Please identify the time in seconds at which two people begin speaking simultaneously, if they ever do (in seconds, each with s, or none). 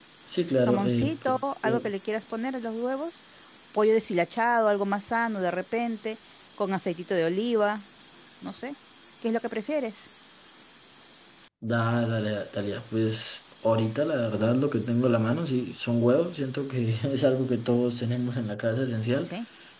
0.6 s